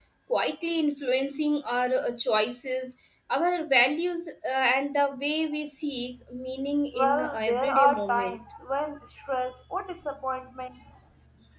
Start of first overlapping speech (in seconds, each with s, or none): 6.9 s